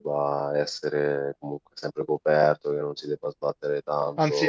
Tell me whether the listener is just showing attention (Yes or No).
No